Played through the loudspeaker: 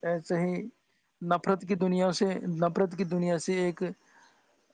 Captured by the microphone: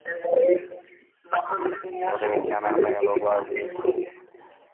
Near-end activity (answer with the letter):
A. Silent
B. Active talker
B